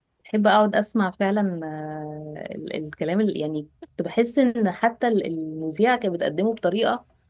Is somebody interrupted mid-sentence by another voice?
No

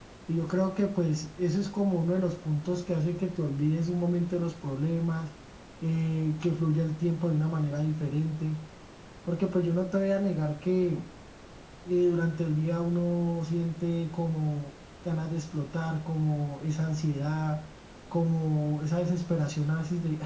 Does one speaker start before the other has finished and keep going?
No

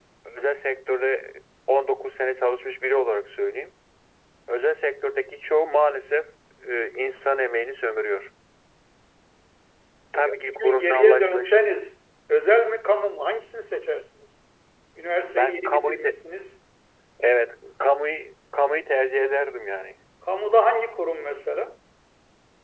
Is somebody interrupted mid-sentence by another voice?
Yes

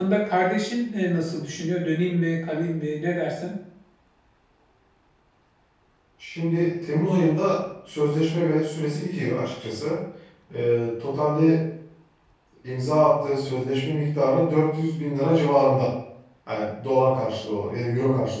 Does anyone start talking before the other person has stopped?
No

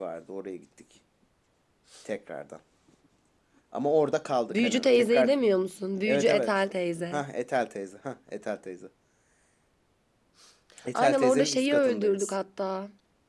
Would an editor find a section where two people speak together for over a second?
Yes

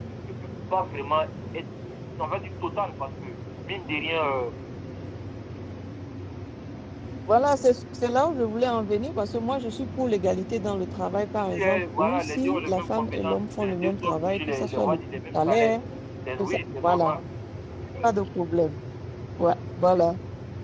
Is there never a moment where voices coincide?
No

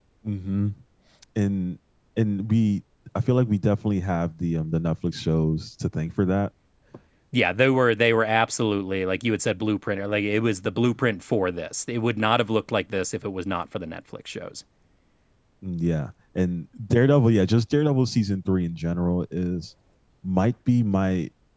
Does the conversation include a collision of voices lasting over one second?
No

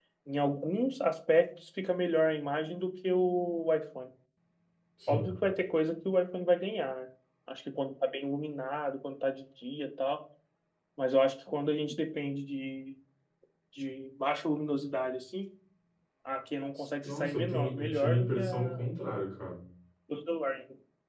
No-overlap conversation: No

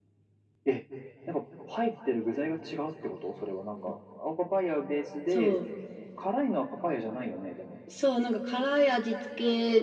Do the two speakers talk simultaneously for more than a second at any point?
No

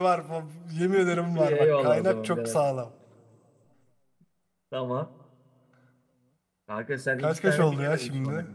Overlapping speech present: Yes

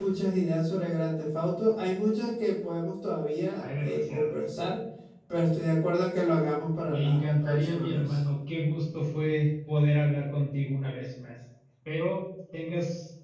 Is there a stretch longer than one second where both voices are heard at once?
Yes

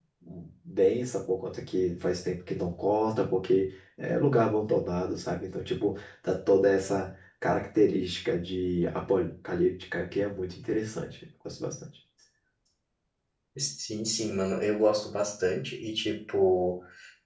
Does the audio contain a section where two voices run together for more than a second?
No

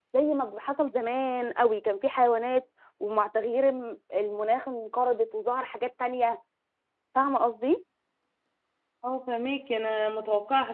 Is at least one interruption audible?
No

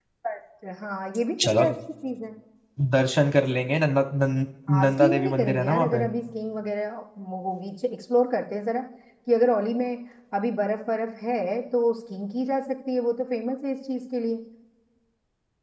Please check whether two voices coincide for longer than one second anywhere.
Yes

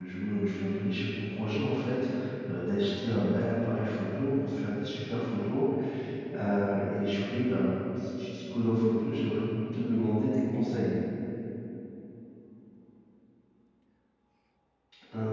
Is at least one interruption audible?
No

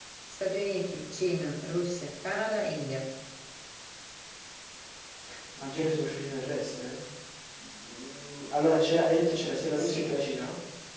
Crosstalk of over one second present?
No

